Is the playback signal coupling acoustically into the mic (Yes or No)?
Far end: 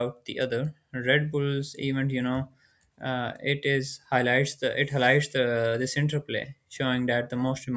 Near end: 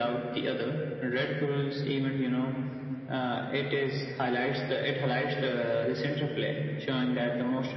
Yes